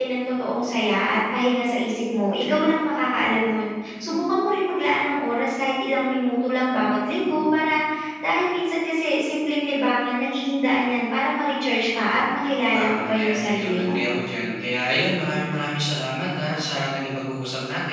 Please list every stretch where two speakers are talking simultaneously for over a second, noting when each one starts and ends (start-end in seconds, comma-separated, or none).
12.8-14.0